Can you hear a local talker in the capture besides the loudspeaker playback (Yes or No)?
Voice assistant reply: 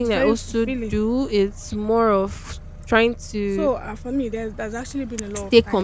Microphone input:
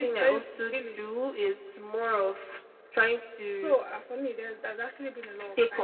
No